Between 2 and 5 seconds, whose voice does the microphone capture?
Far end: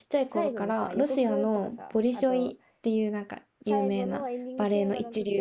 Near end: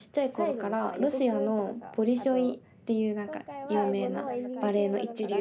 both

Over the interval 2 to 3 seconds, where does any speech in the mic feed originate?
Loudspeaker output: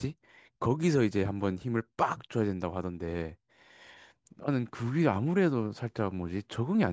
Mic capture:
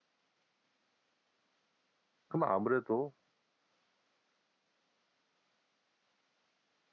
user only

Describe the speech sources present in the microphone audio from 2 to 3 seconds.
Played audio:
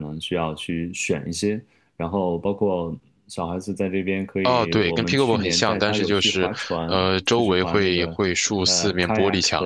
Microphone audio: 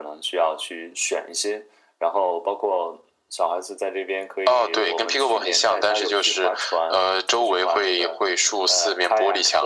echo only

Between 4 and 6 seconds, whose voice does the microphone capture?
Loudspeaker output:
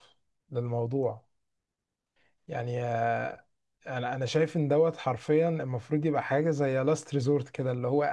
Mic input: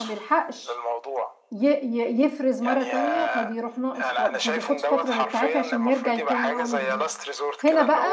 both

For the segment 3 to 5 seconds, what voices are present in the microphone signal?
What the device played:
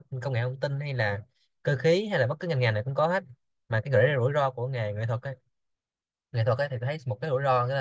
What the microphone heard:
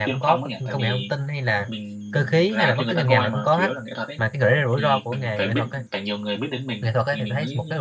both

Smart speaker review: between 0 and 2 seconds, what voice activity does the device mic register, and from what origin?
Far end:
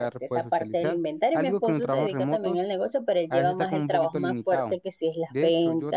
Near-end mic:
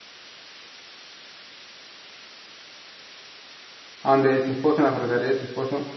neither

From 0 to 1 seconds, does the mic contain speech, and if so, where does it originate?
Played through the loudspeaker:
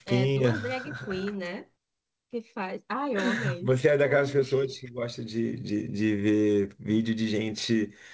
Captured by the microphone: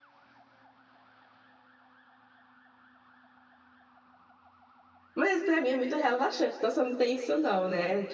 neither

